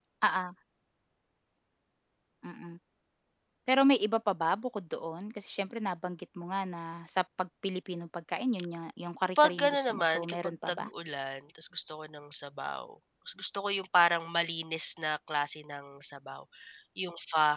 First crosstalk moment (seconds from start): 9.4 s

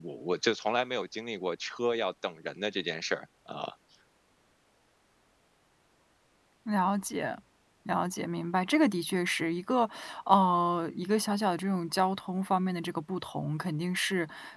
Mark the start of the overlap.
none

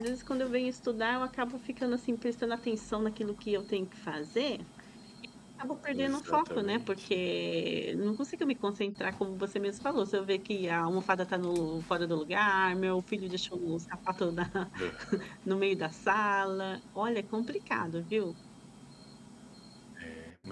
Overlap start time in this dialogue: 5.9 s

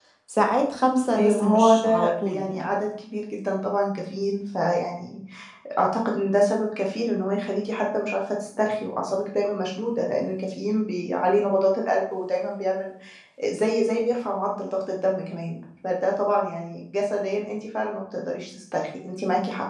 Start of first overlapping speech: 1.1 s

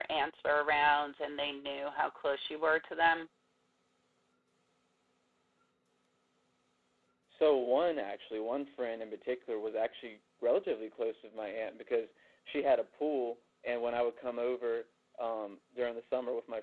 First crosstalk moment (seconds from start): none

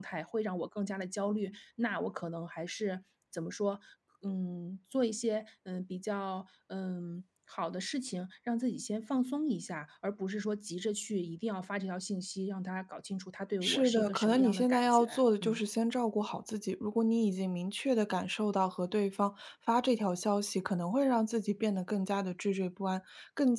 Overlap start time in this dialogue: 13.6 s

